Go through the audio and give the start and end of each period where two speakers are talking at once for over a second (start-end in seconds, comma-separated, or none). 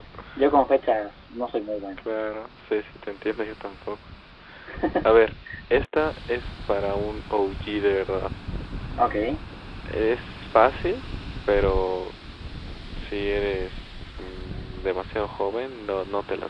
none